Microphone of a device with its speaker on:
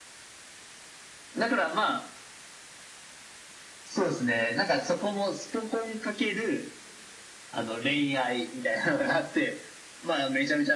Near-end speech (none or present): none